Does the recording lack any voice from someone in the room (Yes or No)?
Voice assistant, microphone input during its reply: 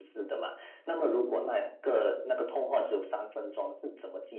Yes